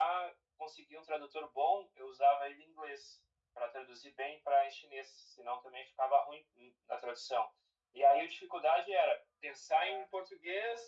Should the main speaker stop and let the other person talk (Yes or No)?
No